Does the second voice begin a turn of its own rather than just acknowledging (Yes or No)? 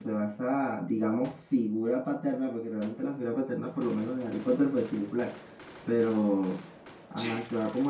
No